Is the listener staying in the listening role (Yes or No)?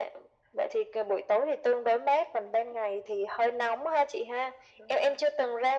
Yes